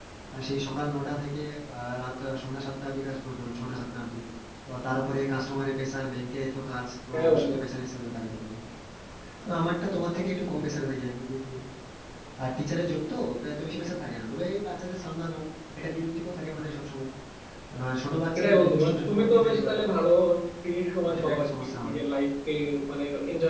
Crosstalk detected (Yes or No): Yes